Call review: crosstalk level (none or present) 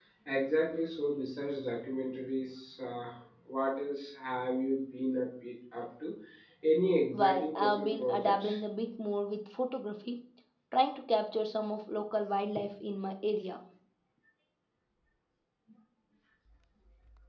present